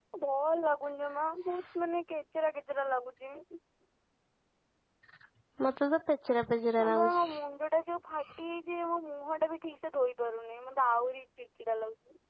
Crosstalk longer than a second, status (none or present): none